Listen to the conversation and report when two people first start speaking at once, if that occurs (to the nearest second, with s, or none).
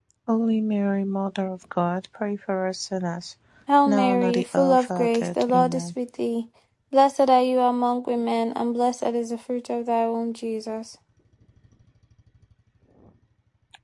4 s